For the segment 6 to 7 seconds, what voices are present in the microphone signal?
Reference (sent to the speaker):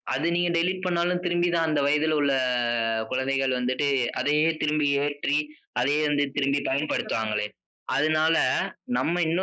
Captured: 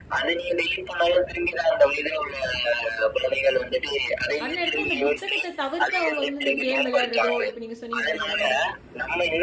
both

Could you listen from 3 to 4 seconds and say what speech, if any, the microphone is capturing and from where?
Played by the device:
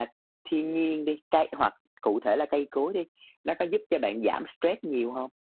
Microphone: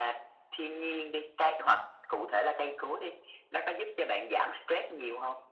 echo only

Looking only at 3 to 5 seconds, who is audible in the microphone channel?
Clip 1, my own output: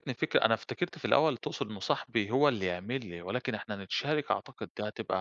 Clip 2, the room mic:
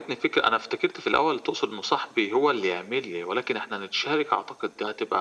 echo only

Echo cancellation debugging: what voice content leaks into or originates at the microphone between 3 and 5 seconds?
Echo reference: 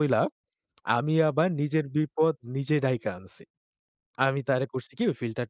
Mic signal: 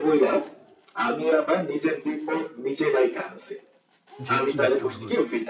both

